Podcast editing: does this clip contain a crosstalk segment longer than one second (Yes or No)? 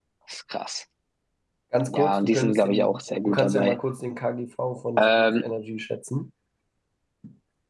Yes